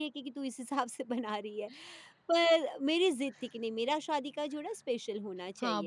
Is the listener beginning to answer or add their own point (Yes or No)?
Yes